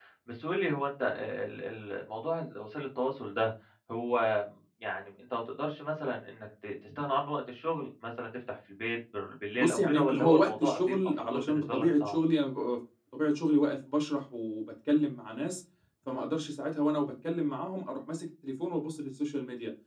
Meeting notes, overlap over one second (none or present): present